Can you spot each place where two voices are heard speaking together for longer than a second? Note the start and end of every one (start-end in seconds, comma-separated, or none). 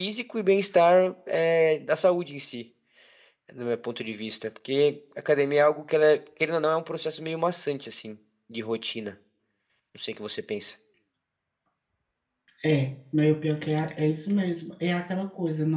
none